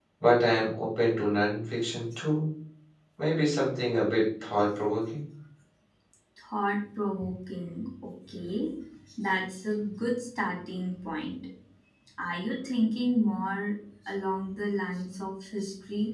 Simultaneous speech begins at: none

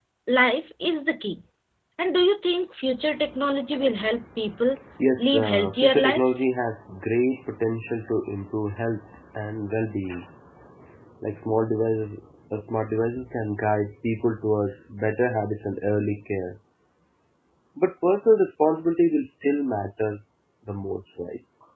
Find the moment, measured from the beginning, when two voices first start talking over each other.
5.2 s

